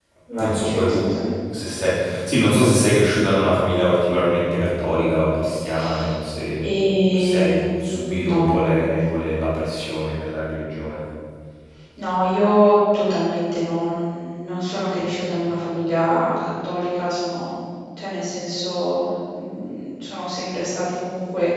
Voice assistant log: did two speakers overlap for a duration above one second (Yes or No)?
Yes